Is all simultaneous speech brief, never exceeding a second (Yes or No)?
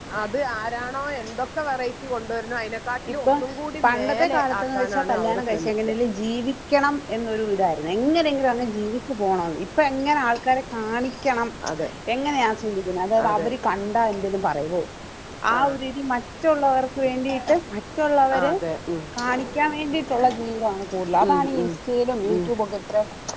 No